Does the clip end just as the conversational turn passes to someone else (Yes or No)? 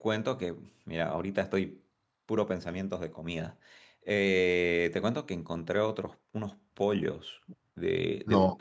No